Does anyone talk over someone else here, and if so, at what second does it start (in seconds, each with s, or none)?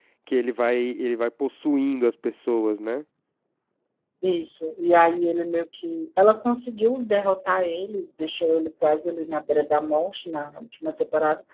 none